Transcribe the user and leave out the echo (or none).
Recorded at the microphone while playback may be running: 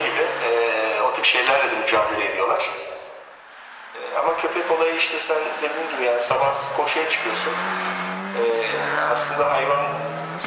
none